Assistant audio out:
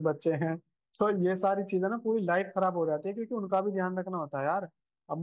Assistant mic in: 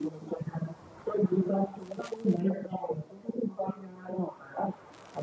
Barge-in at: none

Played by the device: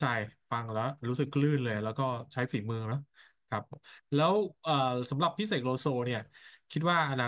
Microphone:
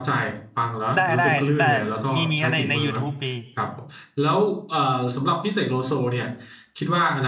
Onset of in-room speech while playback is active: 0.9 s

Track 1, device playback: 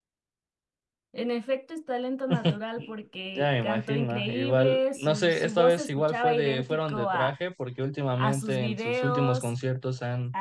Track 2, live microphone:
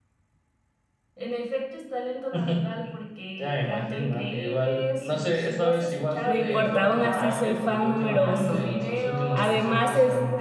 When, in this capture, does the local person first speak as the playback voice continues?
6.2 s

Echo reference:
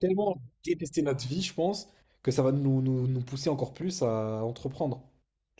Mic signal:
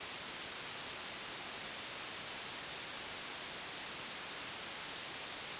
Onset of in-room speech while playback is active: none

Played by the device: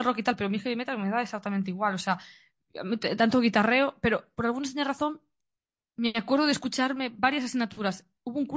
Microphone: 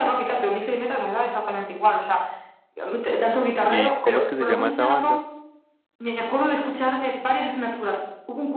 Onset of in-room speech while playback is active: 3.6 s

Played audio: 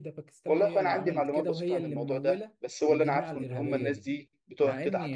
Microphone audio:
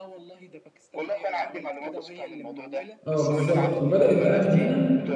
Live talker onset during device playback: 3.1 s

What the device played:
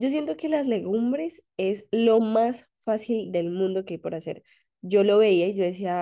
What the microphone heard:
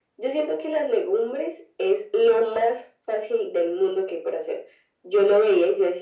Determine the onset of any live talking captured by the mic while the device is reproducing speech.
none

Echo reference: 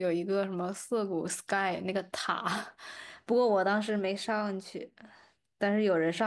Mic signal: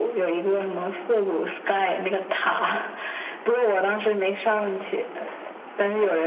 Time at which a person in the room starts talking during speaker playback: none

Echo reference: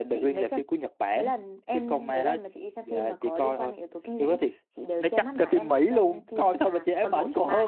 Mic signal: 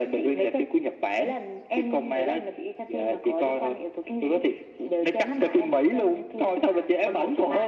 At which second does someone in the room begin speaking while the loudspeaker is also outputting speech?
none

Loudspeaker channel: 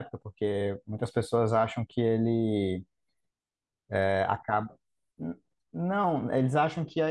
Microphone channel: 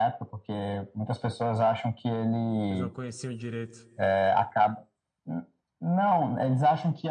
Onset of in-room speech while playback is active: 2.7 s

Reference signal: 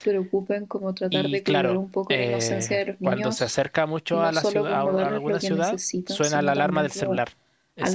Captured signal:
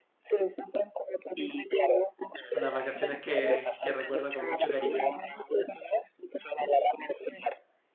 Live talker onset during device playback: 2.5 s

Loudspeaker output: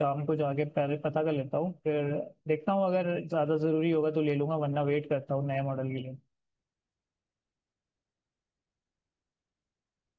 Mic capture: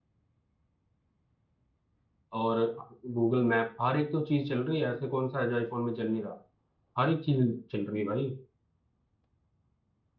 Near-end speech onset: 2.4 s

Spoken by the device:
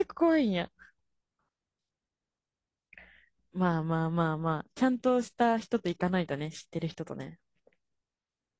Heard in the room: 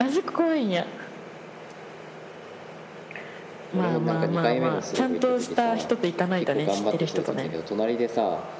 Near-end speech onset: 3.7 s

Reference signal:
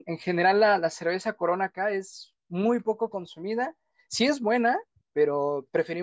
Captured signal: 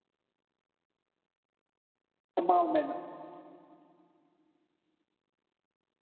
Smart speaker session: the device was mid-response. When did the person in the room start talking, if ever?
2.5 s

